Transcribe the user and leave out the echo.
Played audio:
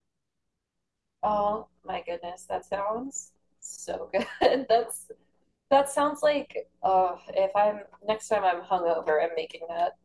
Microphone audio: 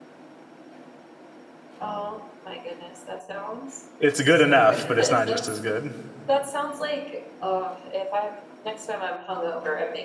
It's good enough, but it's not just as good.

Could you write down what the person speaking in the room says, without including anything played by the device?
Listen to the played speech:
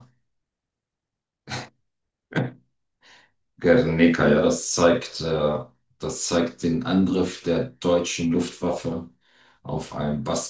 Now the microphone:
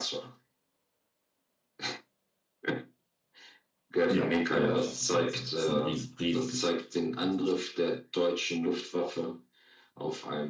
Ja, genau, ich habe das da gesehen. Es ist ein ries, riesiges Bild. Ein riesiges Bild.

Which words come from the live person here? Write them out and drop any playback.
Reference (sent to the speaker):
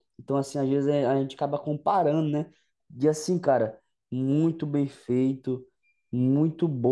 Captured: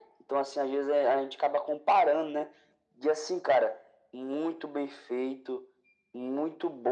none

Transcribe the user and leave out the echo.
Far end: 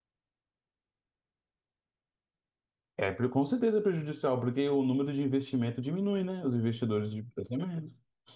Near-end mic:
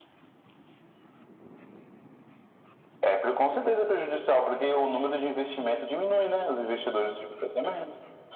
none

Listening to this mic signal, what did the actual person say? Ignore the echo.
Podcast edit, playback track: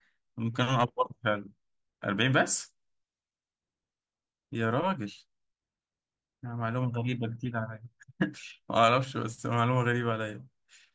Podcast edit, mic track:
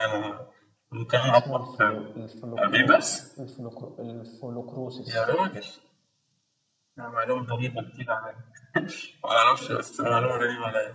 اسمه الفلو... الفلوكرو الفلوكرو الفلوكروسيس

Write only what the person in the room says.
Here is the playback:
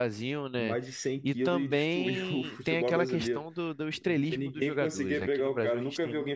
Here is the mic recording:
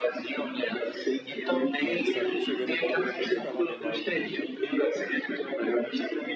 Que ele sabia que chegando aqui ele vai ter que escalar o Neymar em algum momento,

